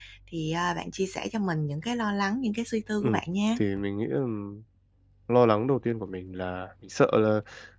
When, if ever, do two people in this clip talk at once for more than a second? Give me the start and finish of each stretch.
none

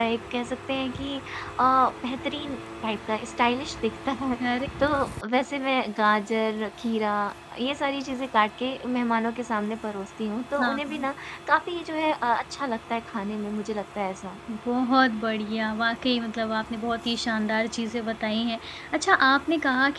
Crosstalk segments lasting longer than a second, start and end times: none

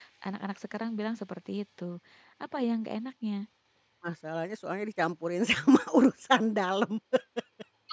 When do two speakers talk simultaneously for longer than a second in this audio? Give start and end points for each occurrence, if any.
none

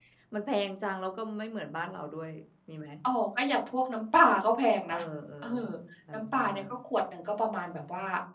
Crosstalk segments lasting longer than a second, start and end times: none

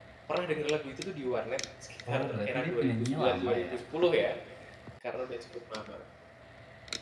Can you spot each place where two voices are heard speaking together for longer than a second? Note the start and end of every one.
2.1-3.8

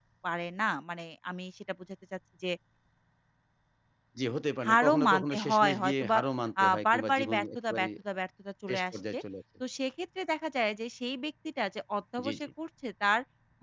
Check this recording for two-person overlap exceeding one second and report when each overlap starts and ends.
4.7-6.2, 6.6-7.9

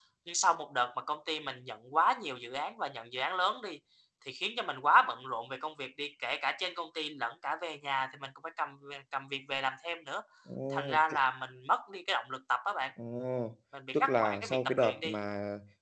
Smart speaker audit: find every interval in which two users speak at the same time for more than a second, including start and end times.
13.9-15.2

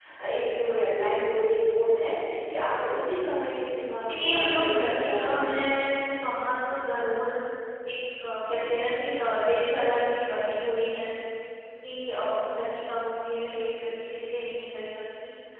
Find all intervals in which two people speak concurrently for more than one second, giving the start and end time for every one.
4.1-5.6

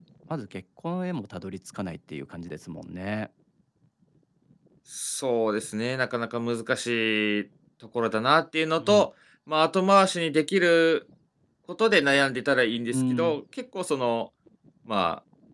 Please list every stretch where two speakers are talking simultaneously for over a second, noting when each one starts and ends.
none

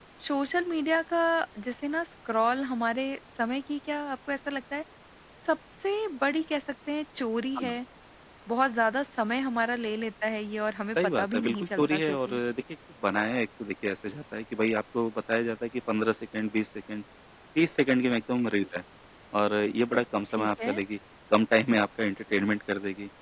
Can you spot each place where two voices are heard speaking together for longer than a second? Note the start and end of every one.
11.0-12.4

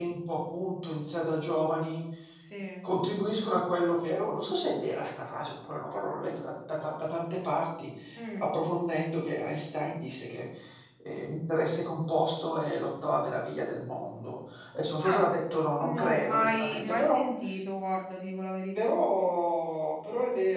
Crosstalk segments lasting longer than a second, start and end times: 15.8-17.2

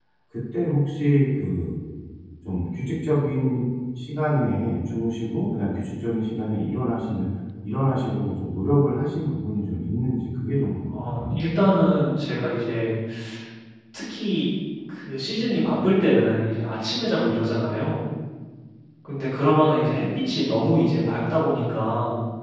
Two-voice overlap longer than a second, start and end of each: none

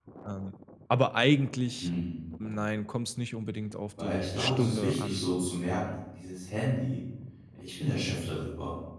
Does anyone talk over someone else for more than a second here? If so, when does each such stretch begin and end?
4.0-5.3

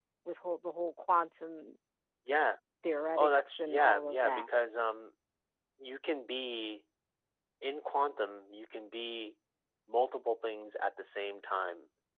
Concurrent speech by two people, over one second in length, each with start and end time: 3.2-4.4

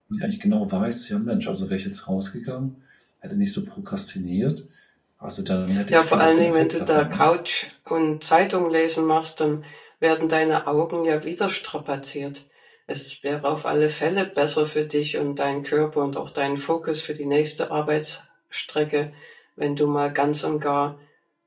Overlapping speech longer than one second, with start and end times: 5.9-7.2

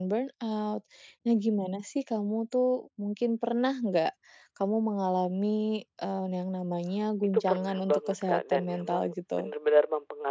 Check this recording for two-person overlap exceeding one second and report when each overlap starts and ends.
7.3-9.5

